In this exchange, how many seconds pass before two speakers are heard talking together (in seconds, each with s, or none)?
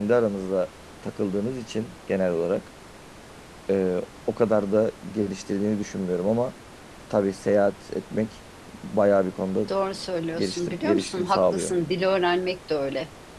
10.3 s